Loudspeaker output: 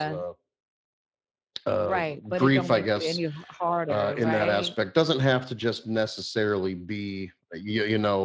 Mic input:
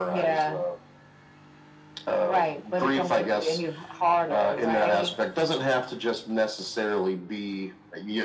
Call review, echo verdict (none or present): present